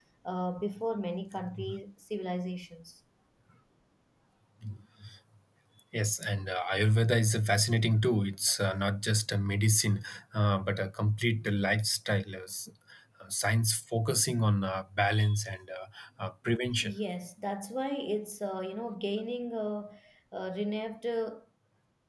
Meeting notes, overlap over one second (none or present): none